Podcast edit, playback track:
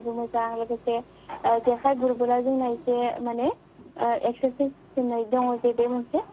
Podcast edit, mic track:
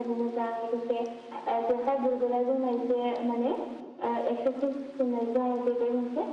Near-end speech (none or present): none